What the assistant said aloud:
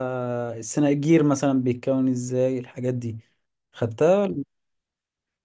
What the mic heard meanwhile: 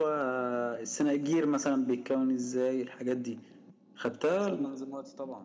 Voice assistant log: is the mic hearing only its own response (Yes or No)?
No